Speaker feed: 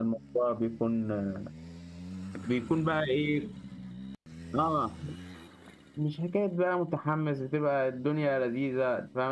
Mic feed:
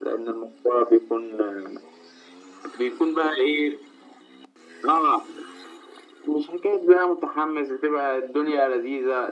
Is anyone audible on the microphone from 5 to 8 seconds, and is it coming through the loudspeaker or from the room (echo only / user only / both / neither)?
echo only